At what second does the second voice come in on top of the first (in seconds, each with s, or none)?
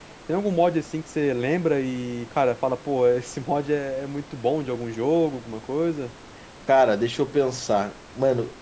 none